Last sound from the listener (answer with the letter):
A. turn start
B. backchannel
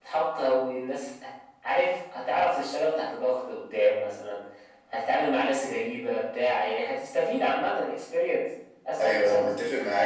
A